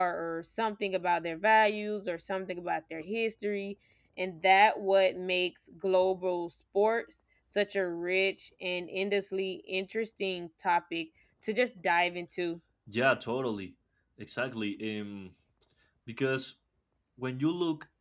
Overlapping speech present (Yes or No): No